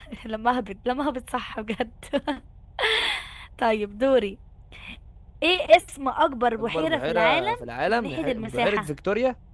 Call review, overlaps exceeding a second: present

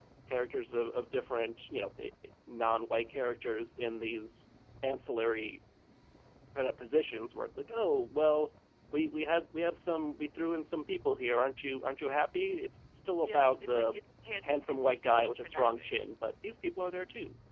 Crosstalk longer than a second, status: present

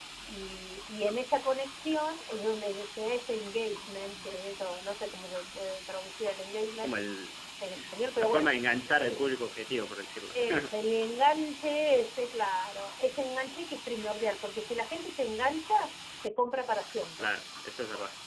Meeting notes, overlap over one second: none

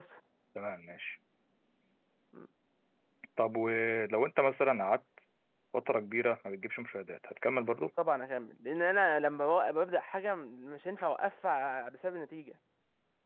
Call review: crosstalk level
none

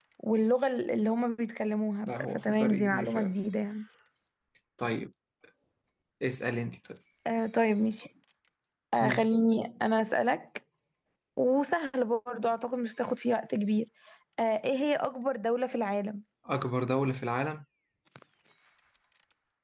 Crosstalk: present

